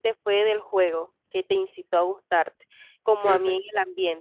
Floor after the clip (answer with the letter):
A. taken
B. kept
B